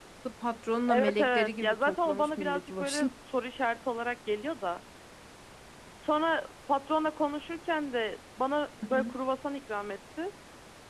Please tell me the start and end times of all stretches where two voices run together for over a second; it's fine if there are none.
0.9-3.1

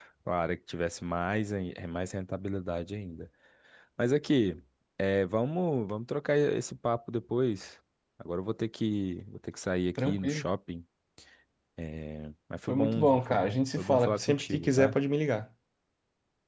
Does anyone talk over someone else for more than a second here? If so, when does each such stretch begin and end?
12.7-14.9

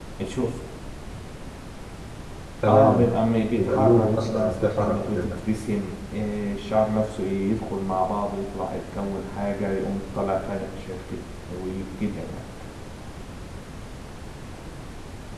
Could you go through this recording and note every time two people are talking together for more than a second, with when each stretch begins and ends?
3.5-5.3

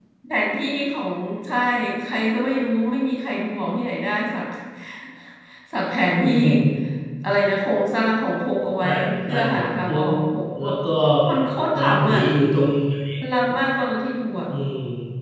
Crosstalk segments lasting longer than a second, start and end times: 8.8-10.1

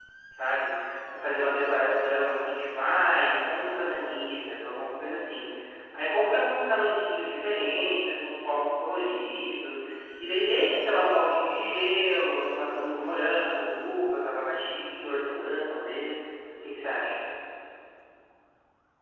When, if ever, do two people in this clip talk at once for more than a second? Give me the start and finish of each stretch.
none

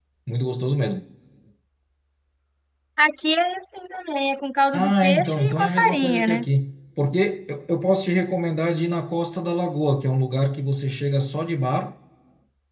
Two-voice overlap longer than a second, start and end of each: 4.7-6.4

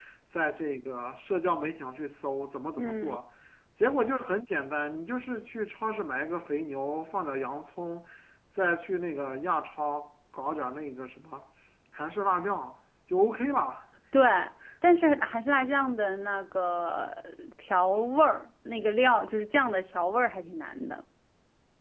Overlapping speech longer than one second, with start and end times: none

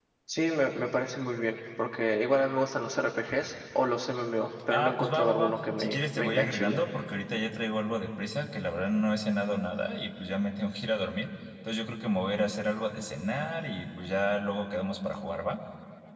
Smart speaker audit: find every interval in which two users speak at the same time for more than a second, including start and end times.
4.7-6.8

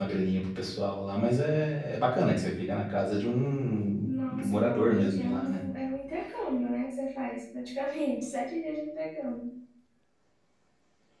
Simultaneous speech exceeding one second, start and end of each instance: 4.0-5.6

